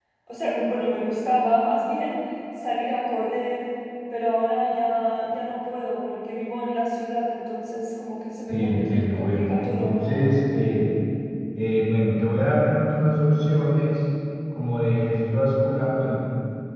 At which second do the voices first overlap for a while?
8 s

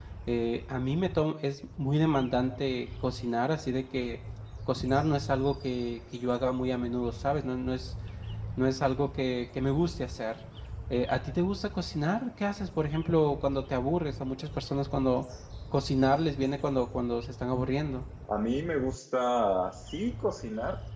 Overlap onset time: none

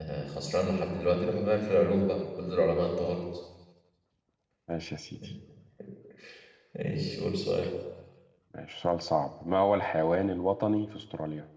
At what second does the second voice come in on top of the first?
none

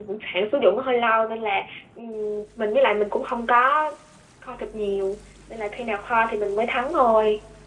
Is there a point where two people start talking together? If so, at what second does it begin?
none

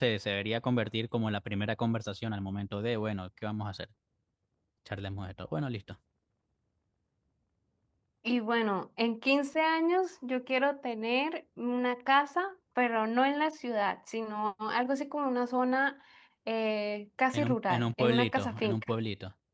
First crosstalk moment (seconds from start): 17 s

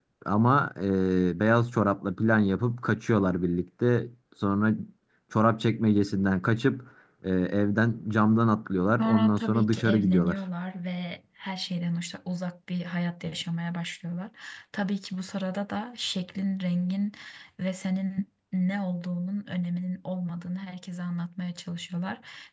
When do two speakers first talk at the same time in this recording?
9 s

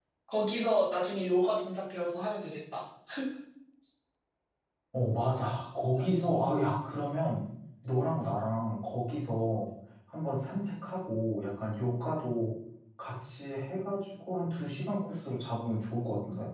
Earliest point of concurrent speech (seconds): none

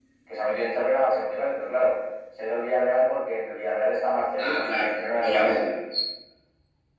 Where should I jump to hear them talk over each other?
4 s

